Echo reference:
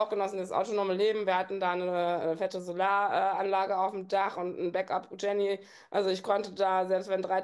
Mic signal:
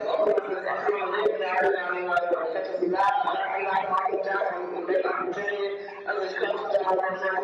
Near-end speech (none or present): none